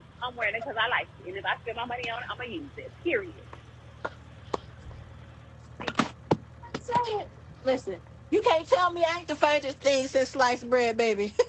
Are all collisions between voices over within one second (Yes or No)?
Yes